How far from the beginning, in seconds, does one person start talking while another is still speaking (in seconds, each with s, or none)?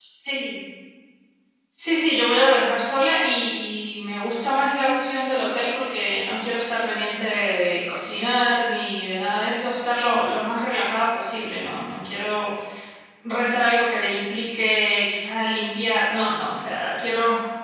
none